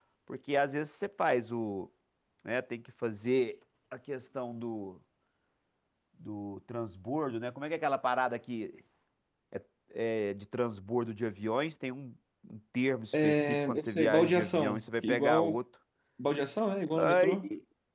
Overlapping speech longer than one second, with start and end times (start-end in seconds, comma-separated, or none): 13.1-15.6